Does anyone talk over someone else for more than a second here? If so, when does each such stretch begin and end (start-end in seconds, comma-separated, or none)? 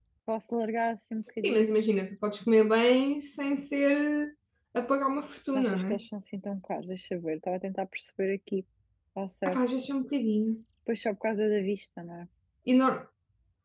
none